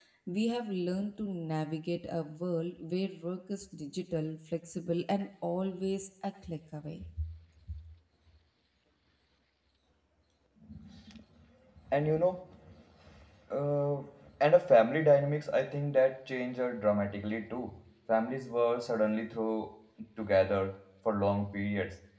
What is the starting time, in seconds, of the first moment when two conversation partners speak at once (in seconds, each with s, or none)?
none